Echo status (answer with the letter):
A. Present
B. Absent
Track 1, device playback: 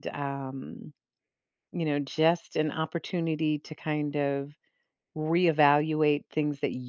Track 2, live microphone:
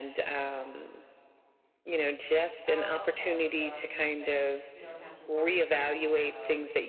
A